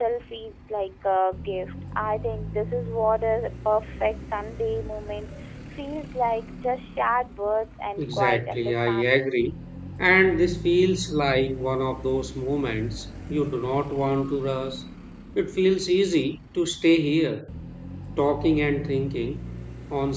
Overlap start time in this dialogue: 8.0 s

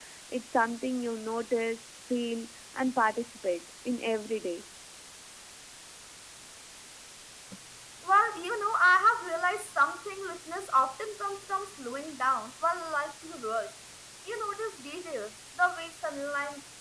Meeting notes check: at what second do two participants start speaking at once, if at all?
none

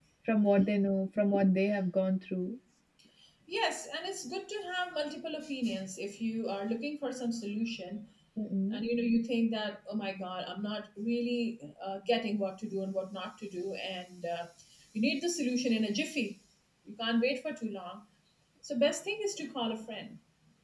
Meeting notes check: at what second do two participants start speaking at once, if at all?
none

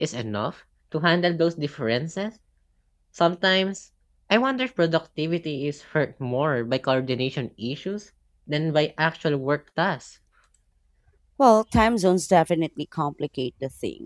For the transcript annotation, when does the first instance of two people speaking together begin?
none

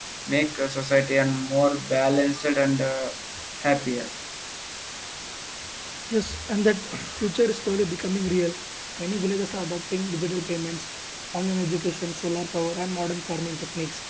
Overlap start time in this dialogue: none

